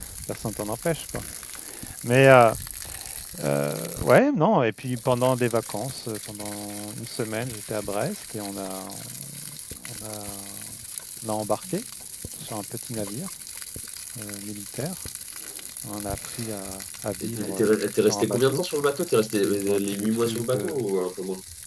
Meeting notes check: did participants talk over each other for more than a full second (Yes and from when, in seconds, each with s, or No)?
Yes, from 17.2 s